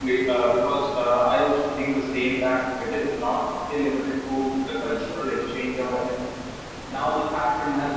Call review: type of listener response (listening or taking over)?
listening